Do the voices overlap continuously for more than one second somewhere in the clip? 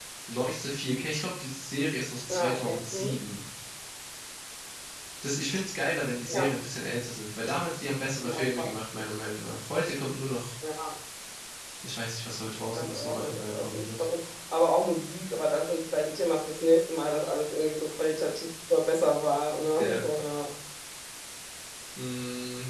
Yes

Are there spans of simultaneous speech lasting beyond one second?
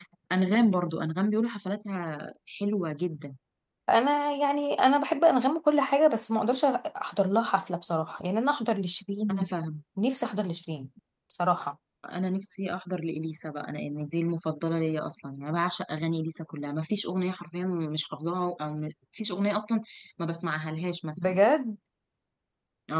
No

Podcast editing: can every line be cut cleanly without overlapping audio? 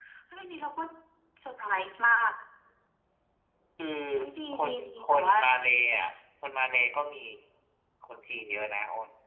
No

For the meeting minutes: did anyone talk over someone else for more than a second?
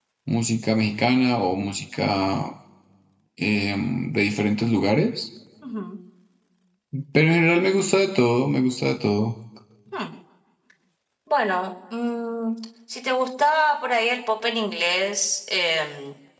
No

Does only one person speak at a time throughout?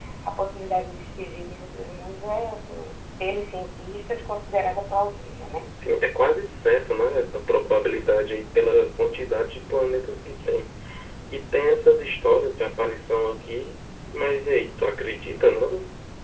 Yes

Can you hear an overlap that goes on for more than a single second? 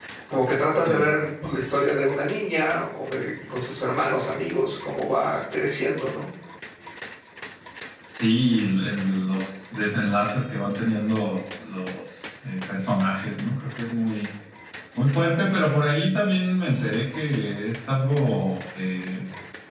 No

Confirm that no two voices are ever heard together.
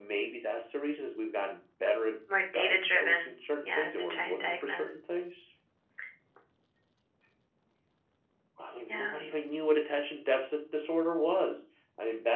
No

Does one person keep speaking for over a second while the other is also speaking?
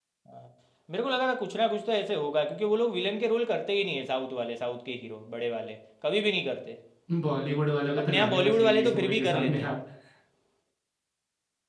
Yes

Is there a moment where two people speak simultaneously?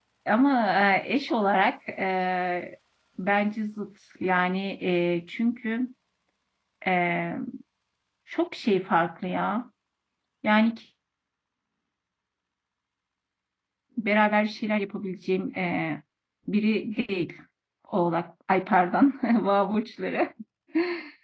No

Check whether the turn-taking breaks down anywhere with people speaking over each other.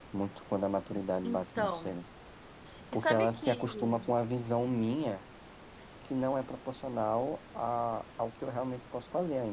Yes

